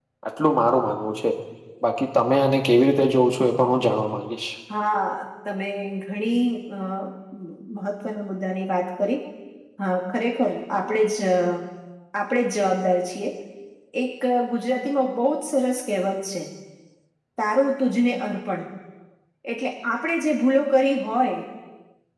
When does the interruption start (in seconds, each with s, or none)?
none